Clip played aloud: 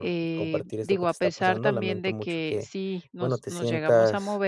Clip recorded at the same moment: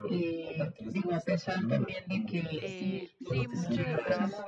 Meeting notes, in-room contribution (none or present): present